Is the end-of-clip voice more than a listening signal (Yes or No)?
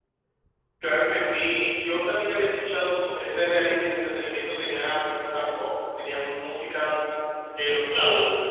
Yes